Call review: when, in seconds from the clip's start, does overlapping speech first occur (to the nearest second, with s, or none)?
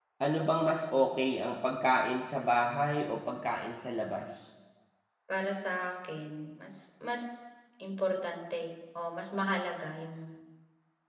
none